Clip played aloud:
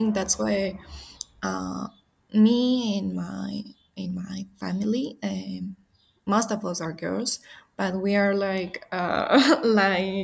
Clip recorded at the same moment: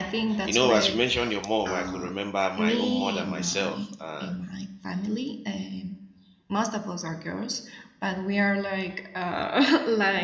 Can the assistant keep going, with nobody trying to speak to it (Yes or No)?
No